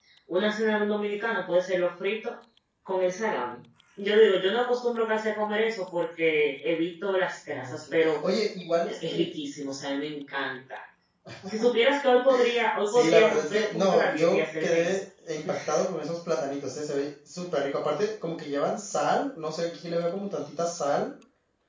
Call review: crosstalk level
present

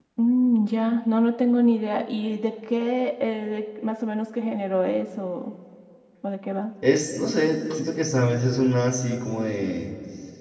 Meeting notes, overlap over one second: none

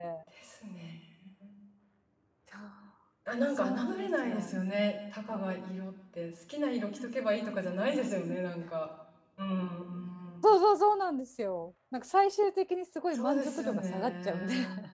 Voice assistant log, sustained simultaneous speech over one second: present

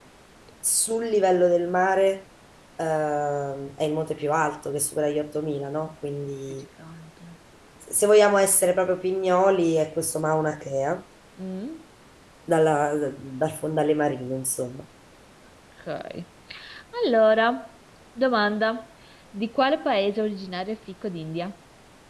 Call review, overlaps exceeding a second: none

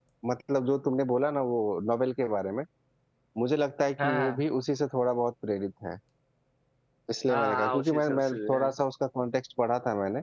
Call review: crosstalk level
present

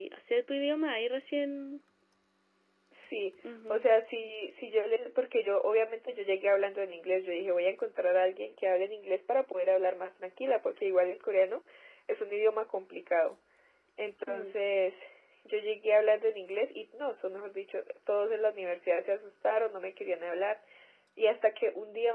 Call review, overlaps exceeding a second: none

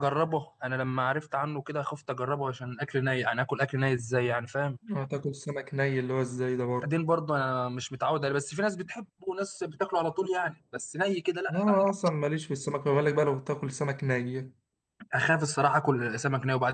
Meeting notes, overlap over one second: none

